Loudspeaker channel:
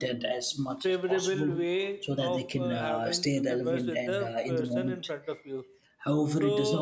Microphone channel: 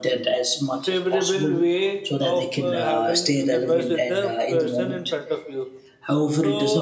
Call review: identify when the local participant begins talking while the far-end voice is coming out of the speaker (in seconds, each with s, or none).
none